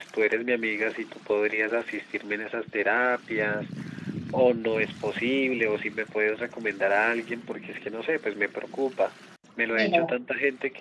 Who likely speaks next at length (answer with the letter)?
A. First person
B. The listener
A